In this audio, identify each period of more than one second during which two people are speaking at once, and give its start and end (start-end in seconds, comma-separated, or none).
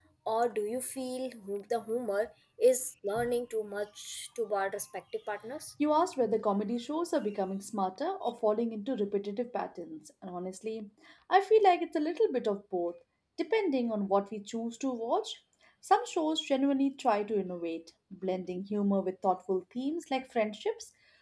none